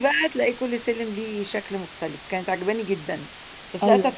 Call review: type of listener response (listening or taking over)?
listening